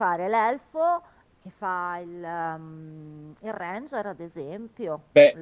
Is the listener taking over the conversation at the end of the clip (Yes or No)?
Yes